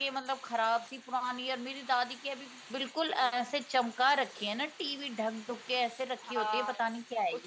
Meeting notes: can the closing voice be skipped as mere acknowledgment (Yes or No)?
No